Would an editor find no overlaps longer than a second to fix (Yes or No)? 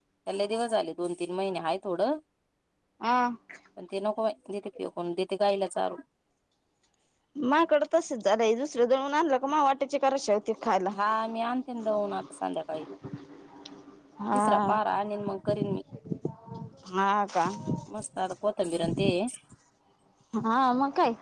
Yes